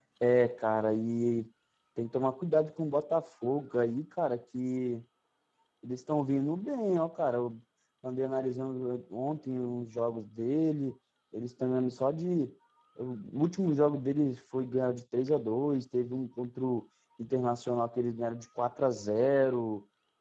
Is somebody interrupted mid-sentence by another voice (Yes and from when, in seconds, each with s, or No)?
No